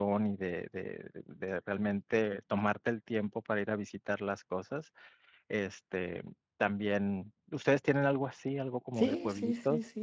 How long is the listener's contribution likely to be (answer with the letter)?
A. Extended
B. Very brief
A